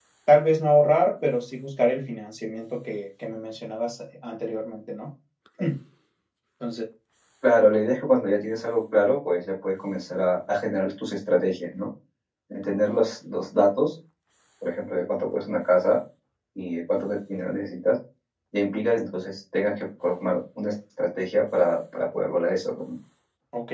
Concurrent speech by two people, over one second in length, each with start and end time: none

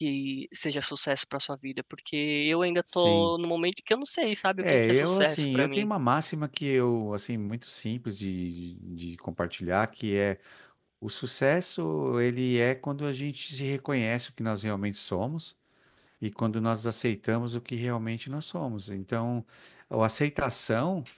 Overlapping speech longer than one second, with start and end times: 4.6-5.9

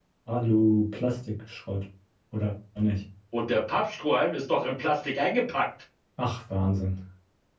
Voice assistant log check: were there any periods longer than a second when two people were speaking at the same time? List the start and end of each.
none

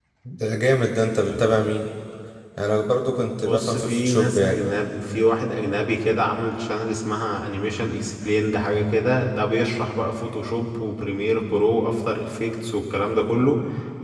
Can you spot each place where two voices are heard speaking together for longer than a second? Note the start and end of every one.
3.4-4.6

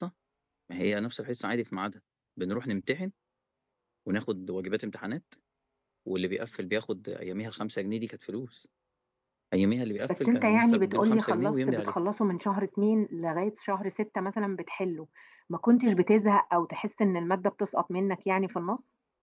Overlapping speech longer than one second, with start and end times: 10.1-11.9

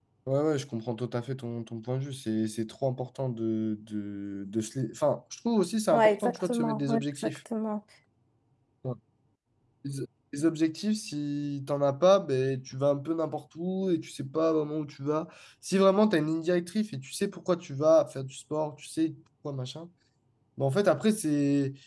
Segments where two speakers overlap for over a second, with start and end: 5.9-7.4

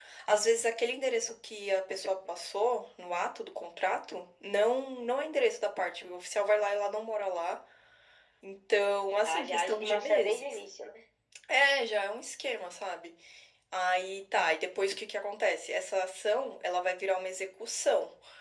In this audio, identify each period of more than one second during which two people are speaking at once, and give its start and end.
9.2-10.6

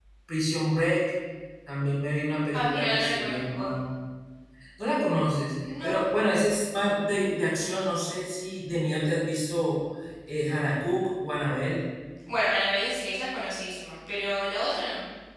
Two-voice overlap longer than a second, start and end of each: 2.5-3.8

